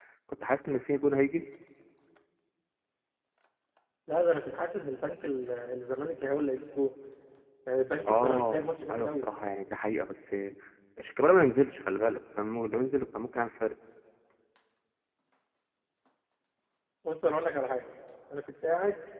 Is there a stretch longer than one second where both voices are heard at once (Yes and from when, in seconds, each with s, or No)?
Yes, from 8.1 s